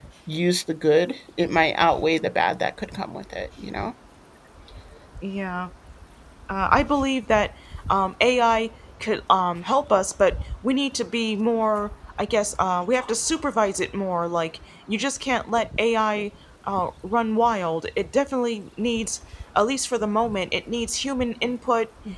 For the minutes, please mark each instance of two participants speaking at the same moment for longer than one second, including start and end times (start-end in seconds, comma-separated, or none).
none